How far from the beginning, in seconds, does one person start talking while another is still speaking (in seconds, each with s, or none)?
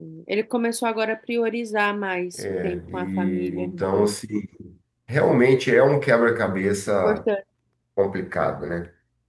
2.4 s